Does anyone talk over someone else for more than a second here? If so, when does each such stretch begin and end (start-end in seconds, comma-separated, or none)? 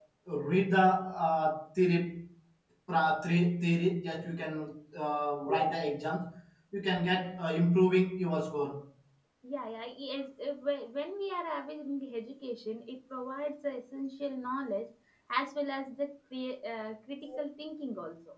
none